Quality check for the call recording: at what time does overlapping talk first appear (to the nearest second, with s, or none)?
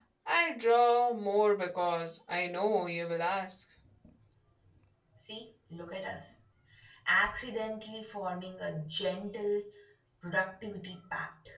none